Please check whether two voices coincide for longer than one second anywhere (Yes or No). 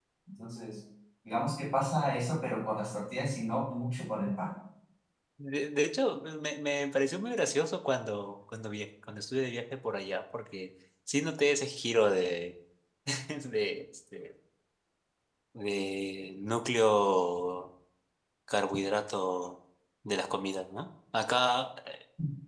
No